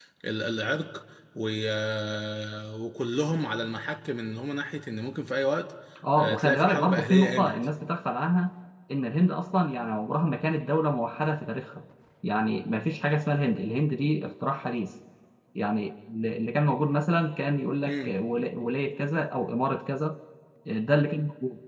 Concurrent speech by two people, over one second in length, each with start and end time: 6.2-7.5

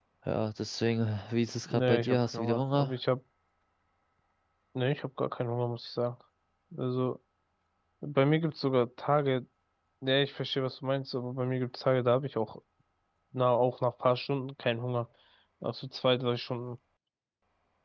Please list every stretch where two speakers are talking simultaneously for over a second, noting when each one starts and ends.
1.7-2.9

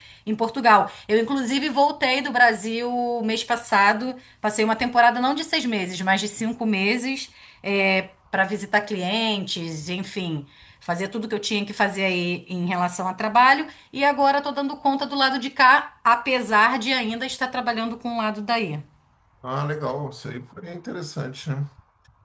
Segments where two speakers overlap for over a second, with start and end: none

